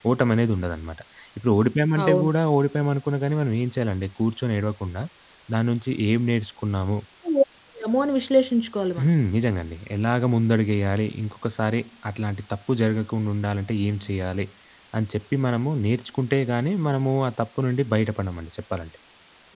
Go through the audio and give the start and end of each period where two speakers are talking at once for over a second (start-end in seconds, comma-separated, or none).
none